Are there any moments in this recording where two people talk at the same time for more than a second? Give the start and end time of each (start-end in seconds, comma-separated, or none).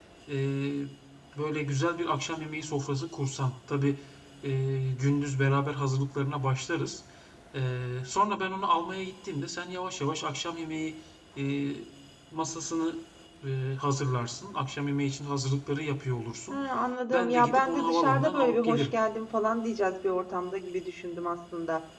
17.1-18.9